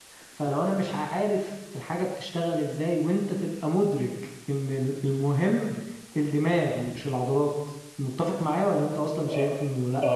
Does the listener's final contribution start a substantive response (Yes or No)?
Yes